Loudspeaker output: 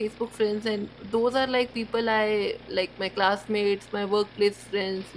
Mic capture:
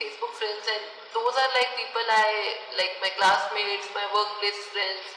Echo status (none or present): present